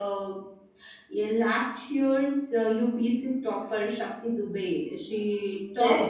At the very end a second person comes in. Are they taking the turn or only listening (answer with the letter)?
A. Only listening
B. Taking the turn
B